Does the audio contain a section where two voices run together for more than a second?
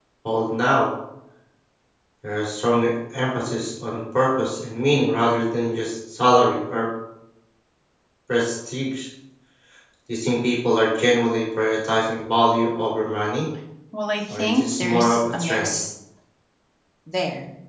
Yes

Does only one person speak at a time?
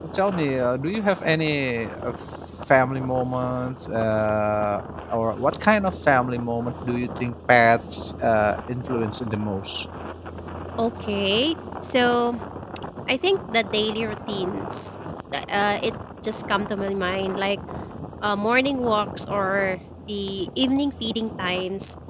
Yes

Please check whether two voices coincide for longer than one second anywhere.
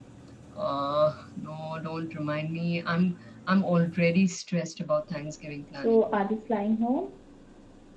No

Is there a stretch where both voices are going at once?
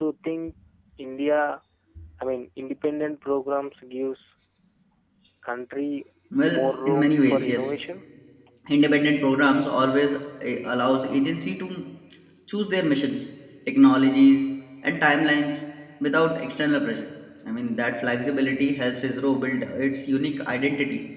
Yes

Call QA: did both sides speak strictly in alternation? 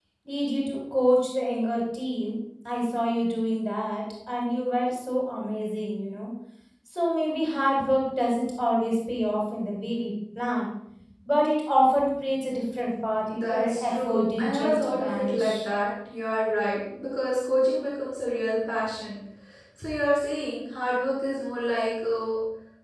No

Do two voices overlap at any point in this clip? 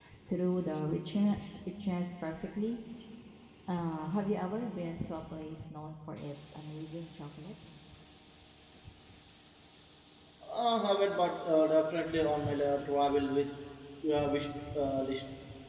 No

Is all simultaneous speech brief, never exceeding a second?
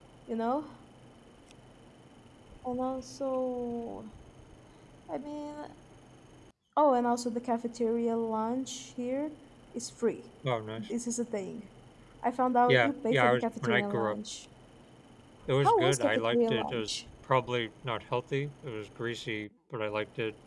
No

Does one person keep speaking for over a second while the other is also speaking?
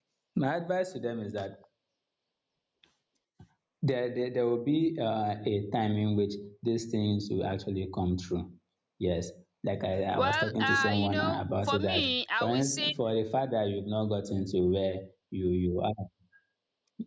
Yes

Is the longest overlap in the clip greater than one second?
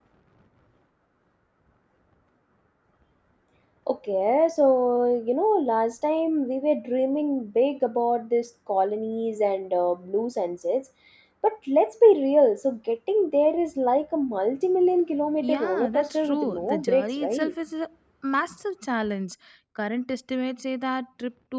Yes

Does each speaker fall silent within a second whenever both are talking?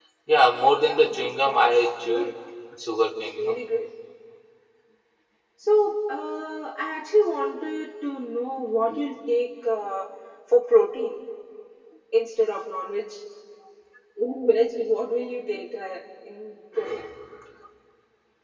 No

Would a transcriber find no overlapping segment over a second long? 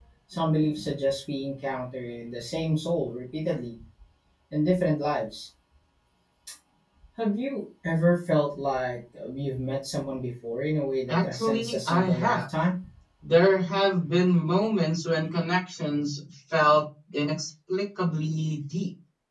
No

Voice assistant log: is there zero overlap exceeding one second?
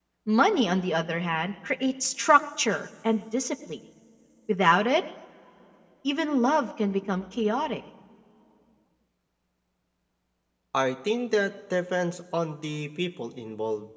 Yes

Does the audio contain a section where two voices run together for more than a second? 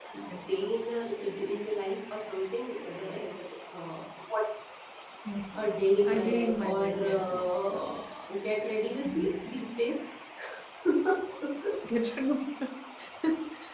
Yes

